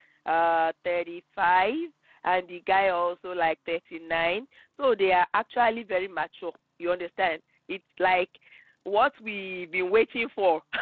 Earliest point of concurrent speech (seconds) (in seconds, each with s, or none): none